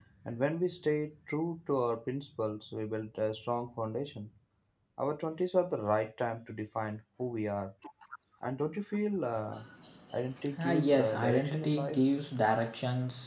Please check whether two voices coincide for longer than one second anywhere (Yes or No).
Yes